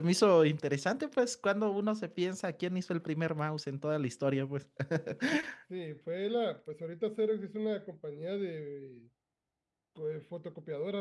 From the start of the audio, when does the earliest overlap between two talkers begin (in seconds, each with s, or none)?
none